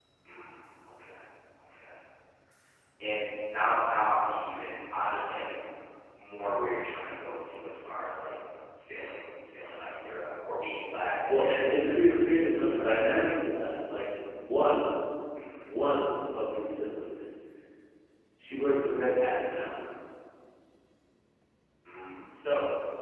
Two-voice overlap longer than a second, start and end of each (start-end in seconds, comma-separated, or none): 11.3-13.0